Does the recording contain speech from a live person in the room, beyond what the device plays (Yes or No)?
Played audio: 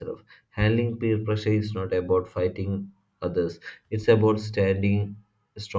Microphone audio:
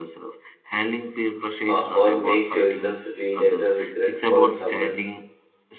Yes